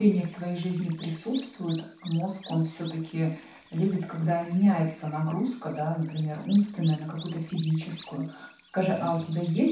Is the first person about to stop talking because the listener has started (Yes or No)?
No